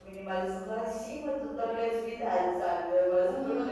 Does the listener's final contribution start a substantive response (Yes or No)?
Yes